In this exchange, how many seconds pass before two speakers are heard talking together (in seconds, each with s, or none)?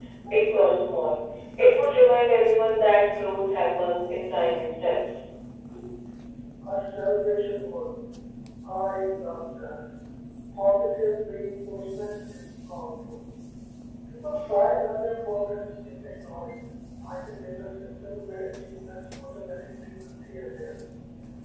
none